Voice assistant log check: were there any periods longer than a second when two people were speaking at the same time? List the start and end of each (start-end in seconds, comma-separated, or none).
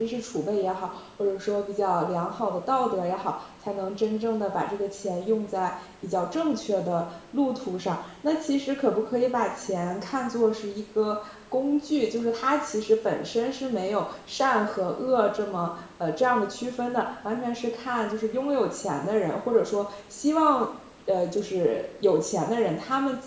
none